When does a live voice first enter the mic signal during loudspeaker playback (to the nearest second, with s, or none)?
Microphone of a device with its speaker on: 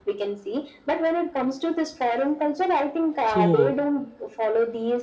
3 s